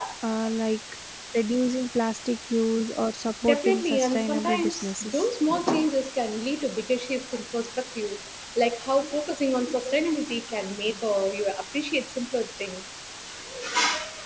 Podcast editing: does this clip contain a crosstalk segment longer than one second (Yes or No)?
Yes